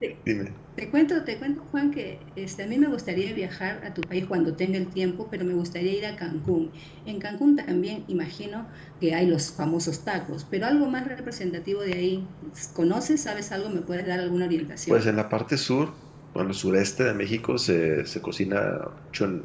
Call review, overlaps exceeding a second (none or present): none